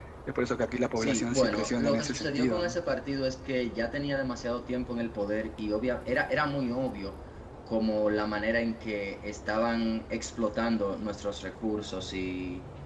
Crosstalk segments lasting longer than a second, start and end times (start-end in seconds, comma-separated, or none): 1.0-2.8